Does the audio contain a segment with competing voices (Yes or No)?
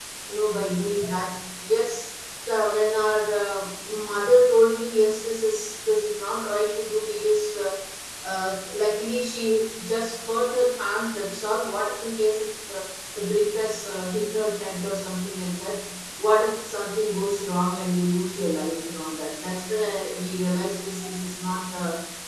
No